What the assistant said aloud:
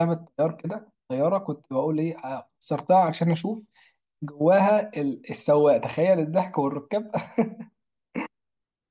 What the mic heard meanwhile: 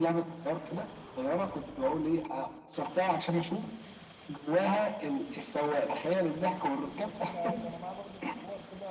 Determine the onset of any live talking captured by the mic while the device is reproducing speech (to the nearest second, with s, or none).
7 s